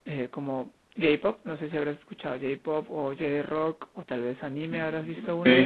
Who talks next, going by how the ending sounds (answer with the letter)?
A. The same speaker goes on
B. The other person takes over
B